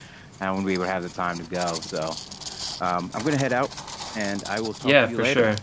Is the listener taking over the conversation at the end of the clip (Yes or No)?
Yes